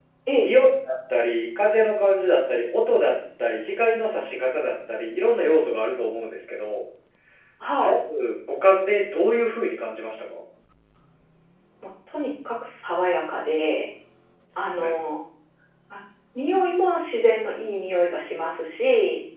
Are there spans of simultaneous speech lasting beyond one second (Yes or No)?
No